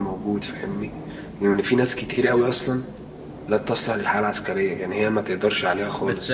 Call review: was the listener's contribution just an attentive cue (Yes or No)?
No